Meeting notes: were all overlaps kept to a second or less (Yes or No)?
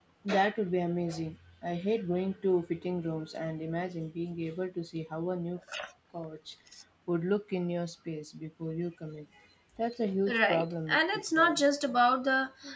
No